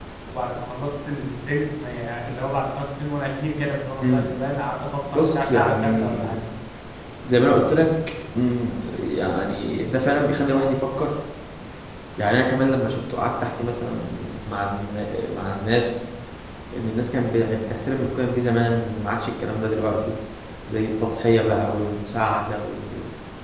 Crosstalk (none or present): present